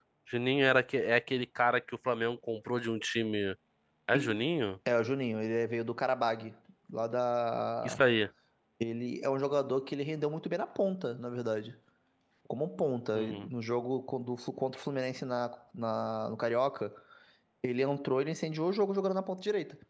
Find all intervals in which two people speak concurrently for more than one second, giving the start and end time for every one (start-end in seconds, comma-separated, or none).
none